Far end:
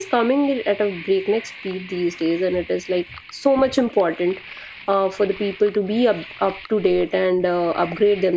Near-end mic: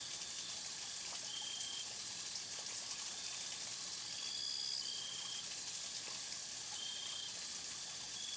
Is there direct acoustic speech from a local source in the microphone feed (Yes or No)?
No